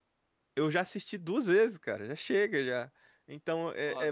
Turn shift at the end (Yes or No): No